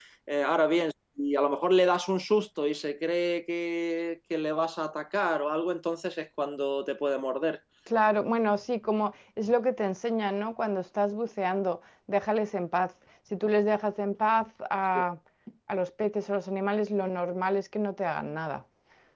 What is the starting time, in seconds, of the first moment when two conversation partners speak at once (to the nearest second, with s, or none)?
none